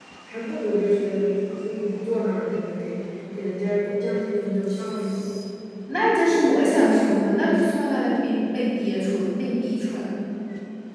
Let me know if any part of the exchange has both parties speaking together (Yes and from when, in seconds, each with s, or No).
No